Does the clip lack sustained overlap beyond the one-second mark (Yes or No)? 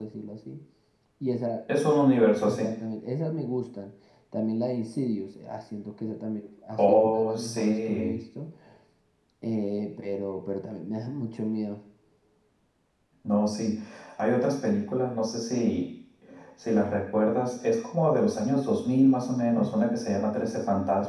No